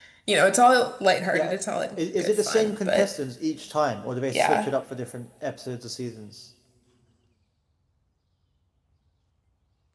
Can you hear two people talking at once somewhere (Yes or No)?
Yes